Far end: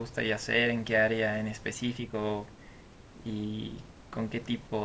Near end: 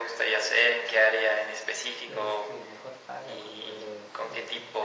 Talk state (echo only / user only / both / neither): both